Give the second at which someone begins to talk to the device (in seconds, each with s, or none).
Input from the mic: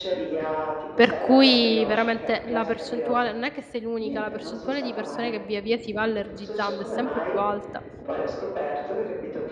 0.9 s